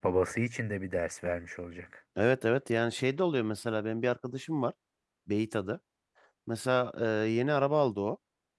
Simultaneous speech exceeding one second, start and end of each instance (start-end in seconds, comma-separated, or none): none